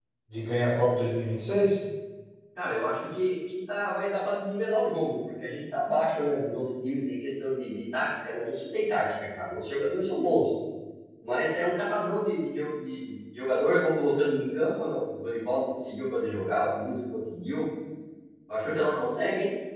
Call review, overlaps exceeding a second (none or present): none